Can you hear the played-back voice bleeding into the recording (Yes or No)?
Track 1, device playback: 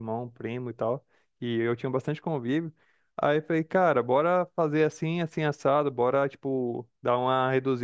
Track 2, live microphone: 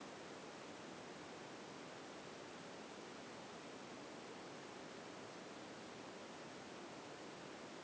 No